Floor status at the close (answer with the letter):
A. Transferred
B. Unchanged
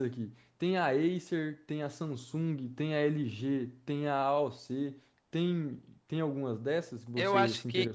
A